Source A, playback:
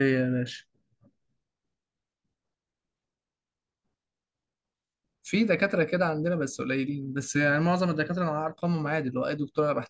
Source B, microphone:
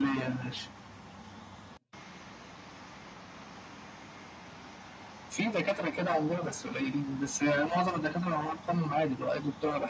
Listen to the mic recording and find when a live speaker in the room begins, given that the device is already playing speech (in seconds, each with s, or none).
none